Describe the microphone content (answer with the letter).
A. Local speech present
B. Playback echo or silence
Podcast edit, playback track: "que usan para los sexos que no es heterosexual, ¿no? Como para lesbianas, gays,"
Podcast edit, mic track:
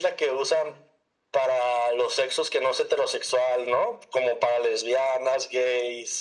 B